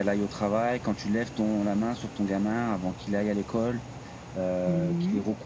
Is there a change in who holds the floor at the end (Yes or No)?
Yes